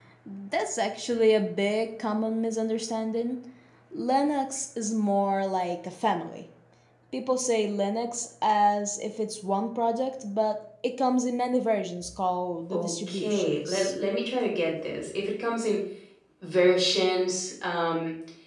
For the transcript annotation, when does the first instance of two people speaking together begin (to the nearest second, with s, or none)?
13 s